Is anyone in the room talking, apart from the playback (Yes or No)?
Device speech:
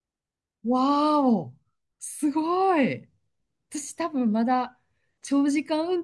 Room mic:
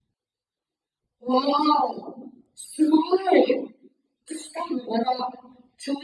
No